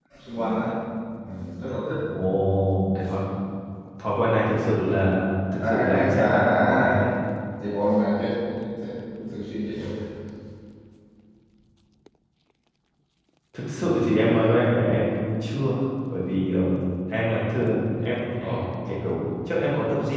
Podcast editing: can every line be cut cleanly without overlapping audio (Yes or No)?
No